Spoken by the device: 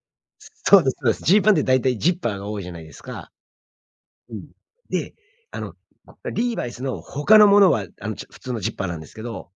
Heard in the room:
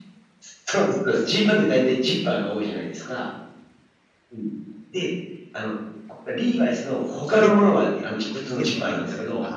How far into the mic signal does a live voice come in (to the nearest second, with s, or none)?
7 s